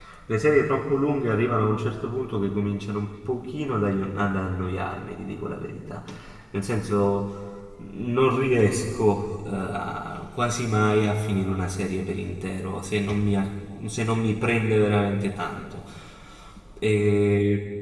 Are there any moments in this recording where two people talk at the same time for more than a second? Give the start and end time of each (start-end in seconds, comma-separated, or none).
none